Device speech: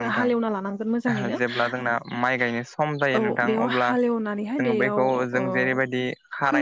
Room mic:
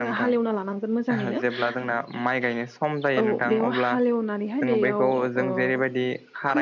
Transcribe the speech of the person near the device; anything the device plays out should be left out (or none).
none